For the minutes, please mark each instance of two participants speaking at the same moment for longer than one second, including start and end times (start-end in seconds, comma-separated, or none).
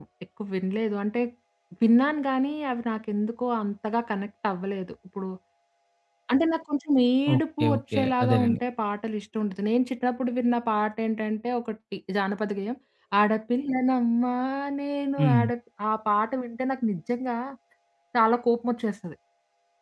7.3-8.6